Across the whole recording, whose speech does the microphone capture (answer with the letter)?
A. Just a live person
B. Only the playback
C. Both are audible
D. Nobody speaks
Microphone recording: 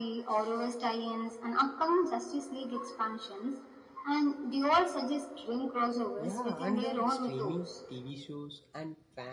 C